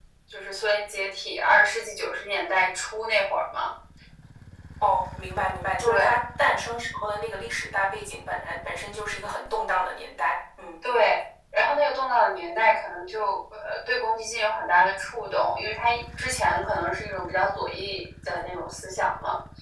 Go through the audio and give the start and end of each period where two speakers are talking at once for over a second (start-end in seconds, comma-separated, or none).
none